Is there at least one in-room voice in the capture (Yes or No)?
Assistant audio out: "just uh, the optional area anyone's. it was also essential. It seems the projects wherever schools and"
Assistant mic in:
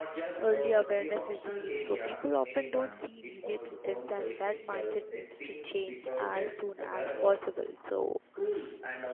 Yes